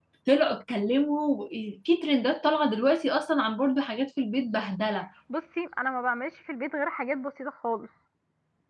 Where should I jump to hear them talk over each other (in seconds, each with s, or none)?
none